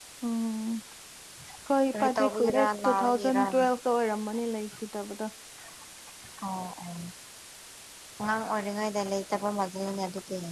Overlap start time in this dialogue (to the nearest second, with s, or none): 2 s